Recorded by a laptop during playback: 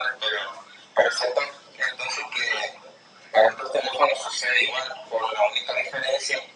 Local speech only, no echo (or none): none